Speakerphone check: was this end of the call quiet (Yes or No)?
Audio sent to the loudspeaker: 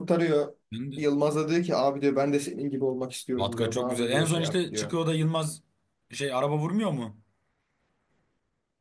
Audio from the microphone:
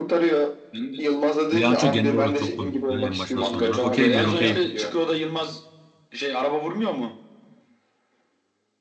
No